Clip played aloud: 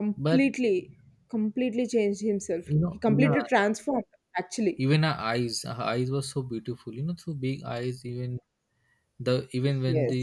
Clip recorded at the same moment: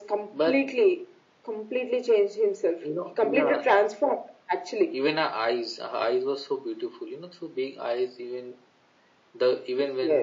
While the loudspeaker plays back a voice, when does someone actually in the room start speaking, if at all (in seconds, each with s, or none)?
none